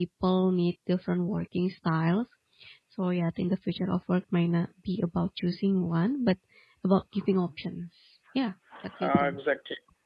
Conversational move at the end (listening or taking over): taking over